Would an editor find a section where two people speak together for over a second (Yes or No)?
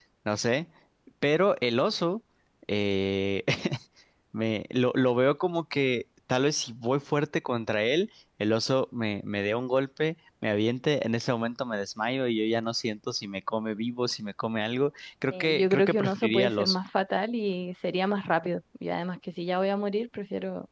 Yes